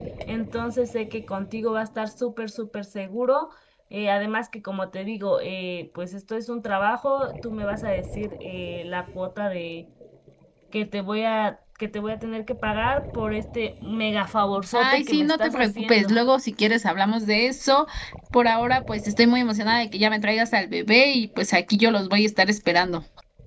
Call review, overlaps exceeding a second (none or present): present